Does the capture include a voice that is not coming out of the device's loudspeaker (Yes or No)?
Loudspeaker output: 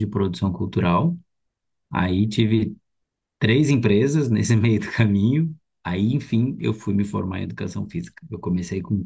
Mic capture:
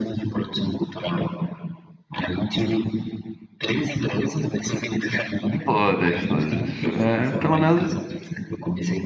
Yes